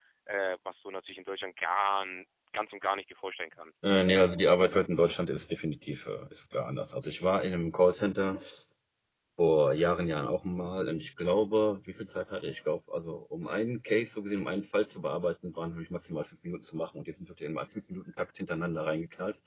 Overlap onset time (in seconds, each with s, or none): none